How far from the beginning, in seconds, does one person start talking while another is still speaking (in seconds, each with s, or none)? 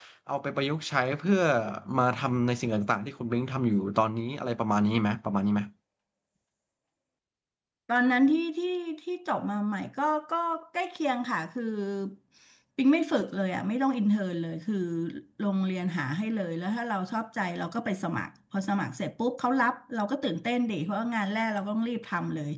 none